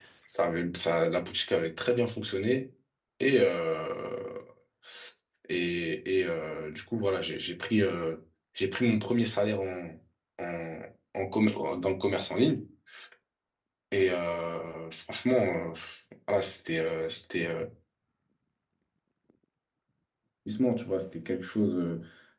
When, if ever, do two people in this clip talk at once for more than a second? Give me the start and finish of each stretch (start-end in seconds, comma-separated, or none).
none